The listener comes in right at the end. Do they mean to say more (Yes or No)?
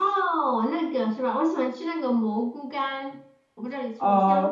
Yes